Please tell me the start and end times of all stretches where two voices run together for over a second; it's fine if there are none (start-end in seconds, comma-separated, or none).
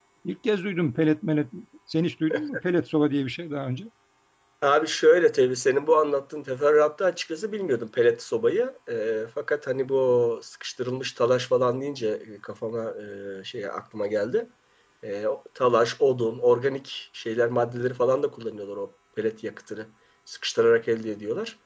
none